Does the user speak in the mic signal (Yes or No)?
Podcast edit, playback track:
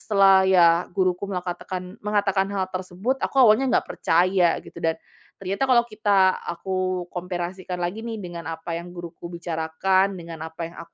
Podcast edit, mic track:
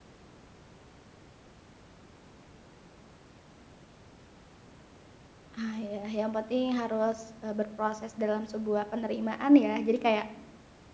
Yes